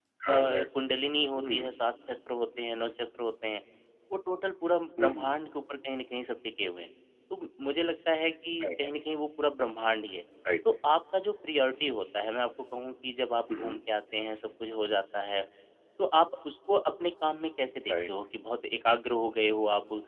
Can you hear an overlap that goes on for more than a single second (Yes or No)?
No